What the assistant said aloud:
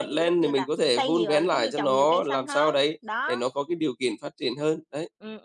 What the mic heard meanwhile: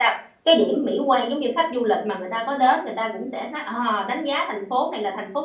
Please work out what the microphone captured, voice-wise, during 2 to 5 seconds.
user only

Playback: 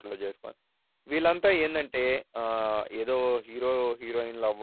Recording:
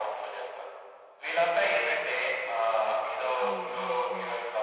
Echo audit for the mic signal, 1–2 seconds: echo only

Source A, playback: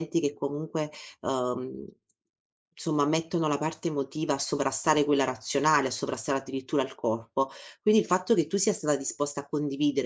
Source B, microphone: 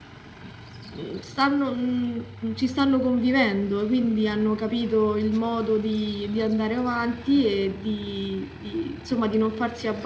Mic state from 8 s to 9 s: user only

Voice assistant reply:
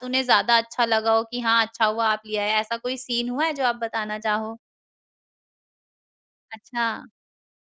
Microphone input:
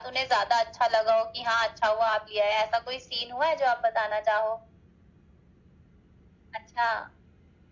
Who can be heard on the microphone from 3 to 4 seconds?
echo only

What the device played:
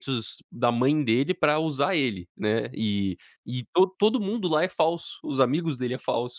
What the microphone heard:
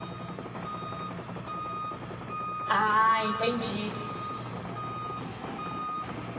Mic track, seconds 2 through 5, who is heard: user only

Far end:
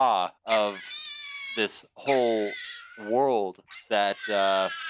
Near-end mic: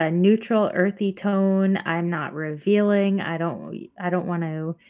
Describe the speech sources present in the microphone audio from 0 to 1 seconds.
user only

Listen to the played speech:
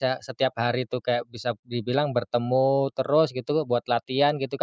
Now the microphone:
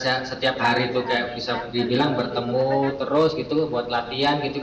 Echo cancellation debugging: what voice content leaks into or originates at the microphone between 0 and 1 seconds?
both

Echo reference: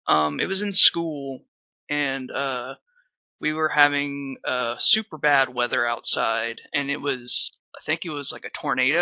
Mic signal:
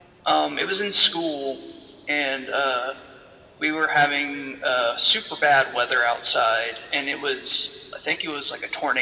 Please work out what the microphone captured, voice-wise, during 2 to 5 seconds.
echo only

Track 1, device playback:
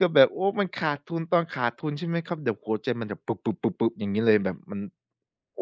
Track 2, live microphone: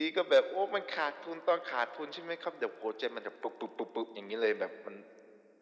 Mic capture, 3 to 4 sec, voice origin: echo only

